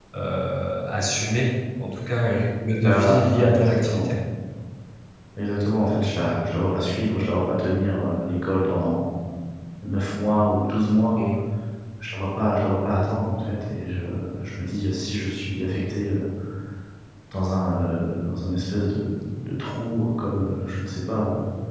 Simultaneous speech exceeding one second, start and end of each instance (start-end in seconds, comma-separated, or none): 2.8-4.1